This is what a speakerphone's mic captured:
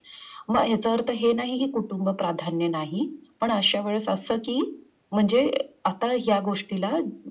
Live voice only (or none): none